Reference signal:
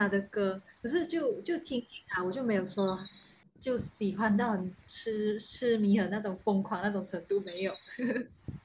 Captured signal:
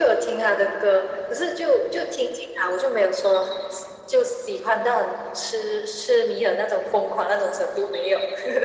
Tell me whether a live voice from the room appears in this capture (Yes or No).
No